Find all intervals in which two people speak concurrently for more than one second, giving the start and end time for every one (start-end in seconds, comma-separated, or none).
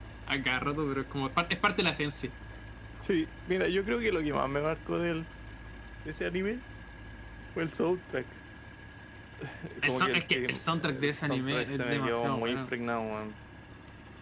9.8-12.7